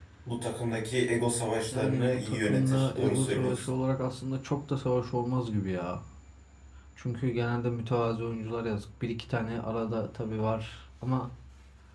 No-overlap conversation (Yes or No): No